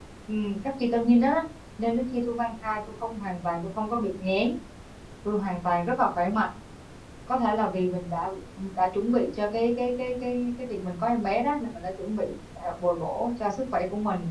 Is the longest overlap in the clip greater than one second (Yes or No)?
No